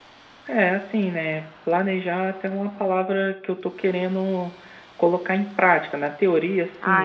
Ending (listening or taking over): listening